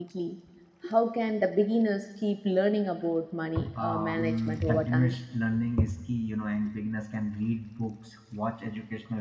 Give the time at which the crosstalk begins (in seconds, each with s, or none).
3.5 s